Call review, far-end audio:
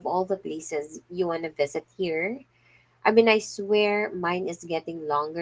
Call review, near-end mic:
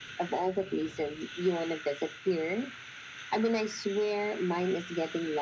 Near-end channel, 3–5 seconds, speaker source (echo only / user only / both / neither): echo only